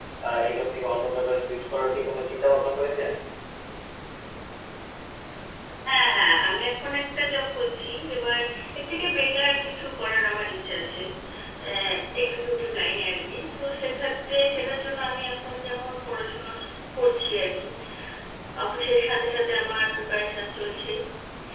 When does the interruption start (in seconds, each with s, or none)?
none